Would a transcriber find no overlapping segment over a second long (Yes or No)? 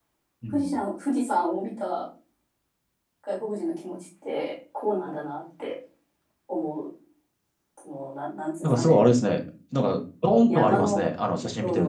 Yes